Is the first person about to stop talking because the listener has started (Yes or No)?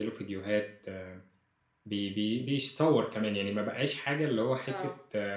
No